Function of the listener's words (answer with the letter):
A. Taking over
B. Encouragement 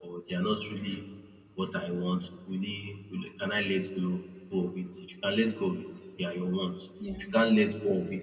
B